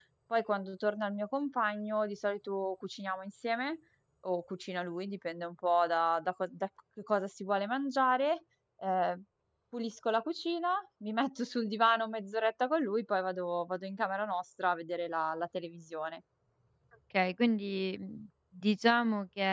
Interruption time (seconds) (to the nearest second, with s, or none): none